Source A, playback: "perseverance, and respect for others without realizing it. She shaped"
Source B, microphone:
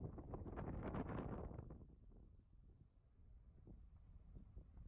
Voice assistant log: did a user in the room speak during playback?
No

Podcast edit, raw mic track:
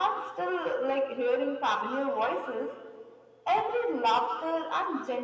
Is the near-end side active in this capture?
No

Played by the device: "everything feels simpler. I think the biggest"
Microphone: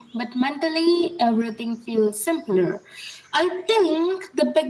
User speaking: No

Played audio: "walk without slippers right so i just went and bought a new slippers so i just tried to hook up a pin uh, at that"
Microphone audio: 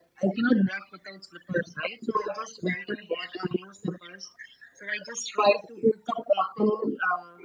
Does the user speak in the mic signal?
No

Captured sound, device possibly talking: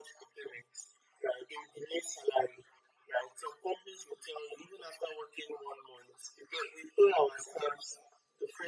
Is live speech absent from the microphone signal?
Yes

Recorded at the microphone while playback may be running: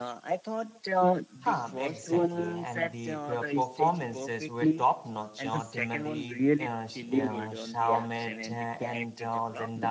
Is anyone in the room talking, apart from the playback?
Yes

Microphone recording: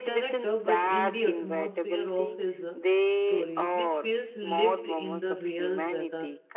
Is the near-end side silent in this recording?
No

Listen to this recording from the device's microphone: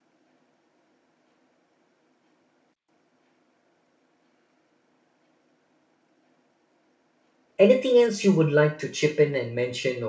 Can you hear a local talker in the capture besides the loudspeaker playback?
Yes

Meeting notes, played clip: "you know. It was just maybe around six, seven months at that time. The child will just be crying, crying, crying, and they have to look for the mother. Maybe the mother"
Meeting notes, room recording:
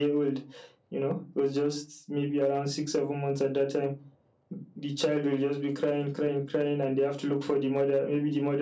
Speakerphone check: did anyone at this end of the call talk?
No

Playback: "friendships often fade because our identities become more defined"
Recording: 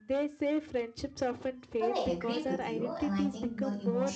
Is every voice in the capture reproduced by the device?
No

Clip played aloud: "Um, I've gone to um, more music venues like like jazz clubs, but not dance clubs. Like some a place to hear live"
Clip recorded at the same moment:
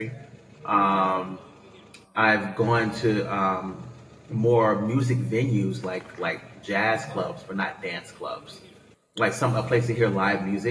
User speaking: No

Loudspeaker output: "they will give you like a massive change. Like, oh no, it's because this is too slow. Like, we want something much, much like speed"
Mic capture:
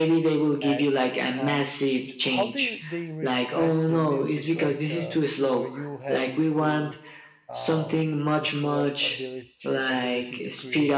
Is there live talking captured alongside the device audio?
Yes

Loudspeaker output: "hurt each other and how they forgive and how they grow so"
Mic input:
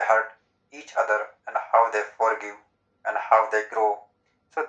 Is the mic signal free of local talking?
Yes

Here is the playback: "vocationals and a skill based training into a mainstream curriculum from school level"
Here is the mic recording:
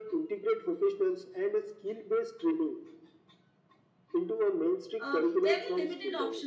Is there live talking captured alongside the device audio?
Yes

